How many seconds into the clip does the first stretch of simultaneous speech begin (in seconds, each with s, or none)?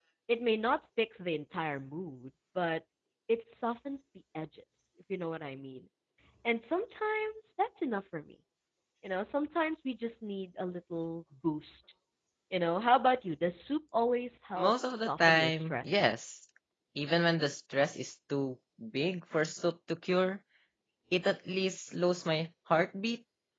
14.6 s